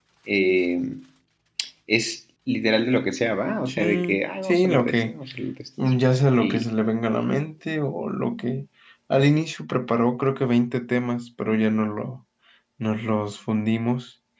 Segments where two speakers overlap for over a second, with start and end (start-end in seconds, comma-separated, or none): 3.7-5.2